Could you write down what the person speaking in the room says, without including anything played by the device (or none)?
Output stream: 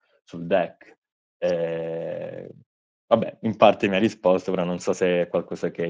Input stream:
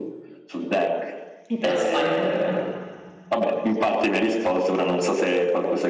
e te la spari tutta.